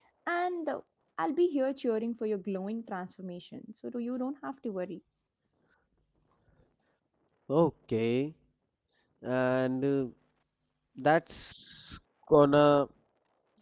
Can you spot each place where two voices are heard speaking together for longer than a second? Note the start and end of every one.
none

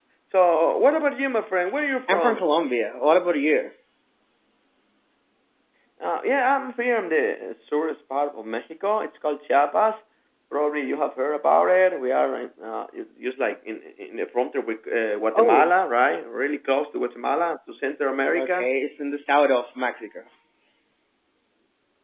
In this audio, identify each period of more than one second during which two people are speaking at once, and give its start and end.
none

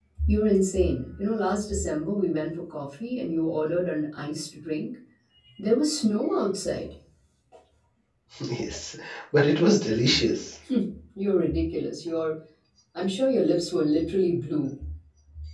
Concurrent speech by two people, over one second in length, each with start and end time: none

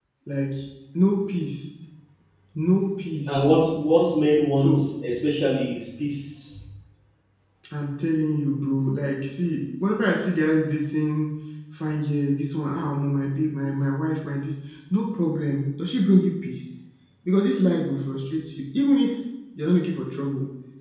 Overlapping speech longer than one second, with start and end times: none

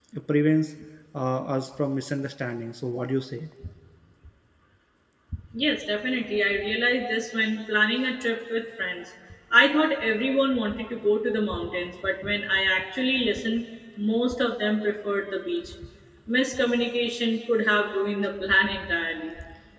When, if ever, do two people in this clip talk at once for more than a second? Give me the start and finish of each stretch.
none

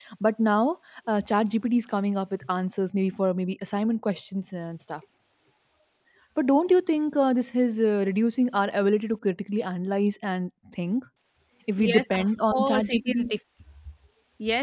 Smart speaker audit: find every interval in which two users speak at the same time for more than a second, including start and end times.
11.8-13.3

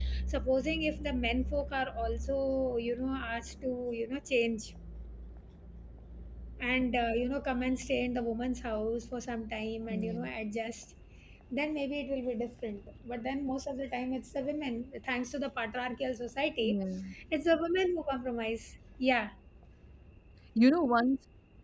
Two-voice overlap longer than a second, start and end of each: none

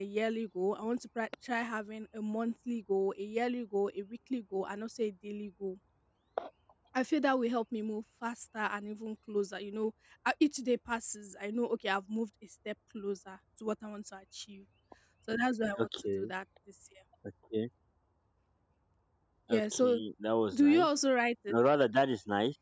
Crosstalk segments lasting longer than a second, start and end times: none

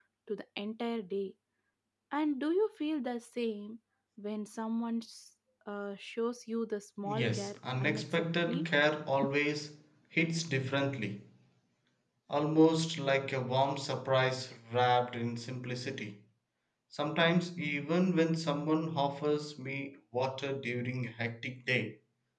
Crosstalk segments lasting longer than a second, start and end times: 7.0-8.7

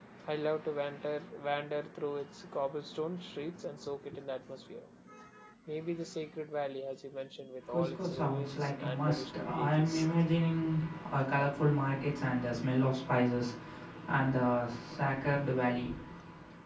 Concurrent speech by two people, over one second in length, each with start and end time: 7.7-10.1

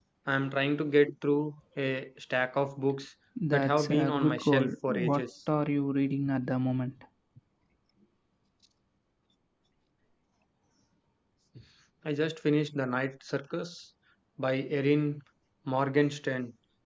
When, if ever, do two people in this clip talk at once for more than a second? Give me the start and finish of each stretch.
3.5-5.2

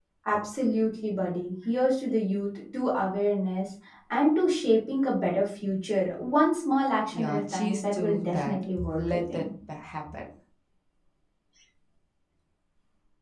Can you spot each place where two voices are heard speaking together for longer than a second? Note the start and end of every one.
7.1-9.4

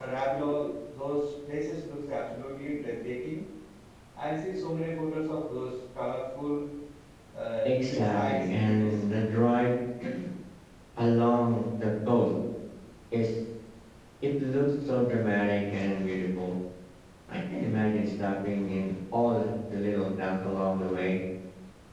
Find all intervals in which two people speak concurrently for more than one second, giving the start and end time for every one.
7.7-9.0

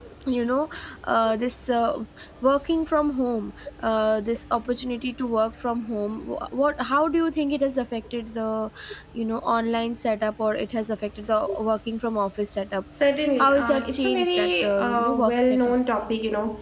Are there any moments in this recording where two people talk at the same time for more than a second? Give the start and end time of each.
13.4-15.7

